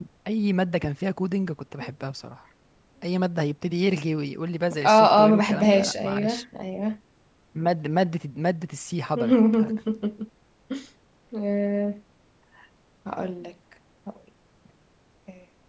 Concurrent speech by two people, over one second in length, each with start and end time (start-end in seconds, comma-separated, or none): 4.8-6.4